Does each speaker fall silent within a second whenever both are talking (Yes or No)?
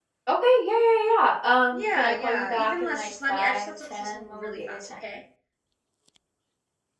No